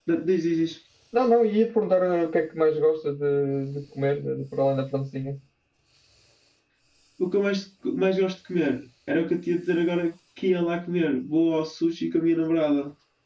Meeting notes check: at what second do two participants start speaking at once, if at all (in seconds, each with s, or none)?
none